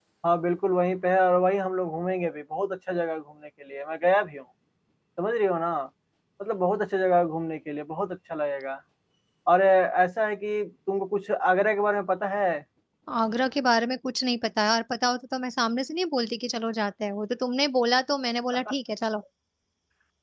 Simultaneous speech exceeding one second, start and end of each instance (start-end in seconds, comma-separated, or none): none